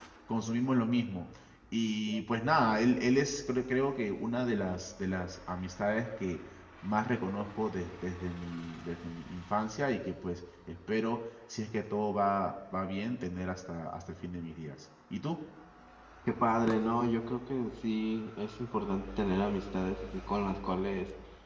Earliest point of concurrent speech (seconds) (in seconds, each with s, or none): none